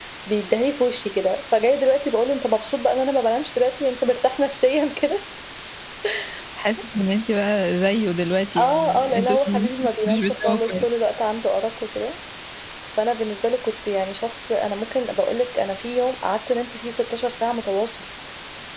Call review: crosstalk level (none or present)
present